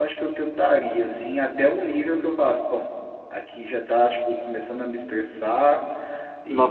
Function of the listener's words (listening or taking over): taking over